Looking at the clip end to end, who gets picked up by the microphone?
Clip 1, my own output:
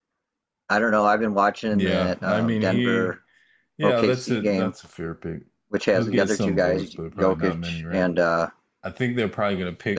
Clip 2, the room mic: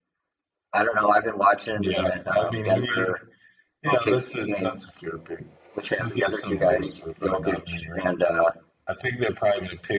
echo only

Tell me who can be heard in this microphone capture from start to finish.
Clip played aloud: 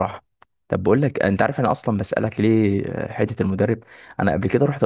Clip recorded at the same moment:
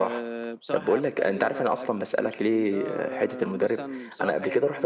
both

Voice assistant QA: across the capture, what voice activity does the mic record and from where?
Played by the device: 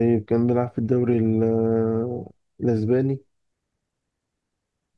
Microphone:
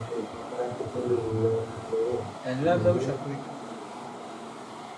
both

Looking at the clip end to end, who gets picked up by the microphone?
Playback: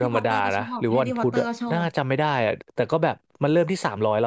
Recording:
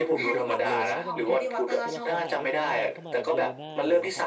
both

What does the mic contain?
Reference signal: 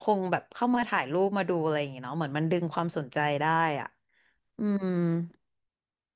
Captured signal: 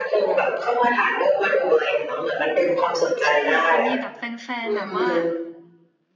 both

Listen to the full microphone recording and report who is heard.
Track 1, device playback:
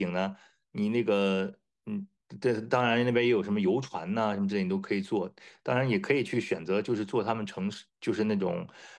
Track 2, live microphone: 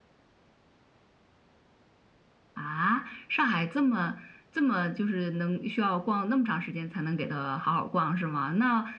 user only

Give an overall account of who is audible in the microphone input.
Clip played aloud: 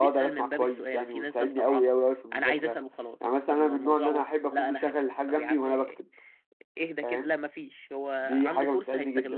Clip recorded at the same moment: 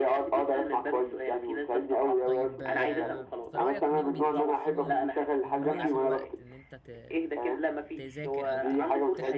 both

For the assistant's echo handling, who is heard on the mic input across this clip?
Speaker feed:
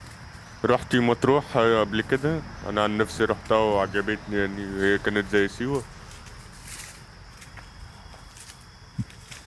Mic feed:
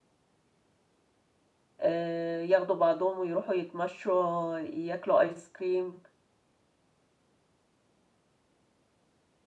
user only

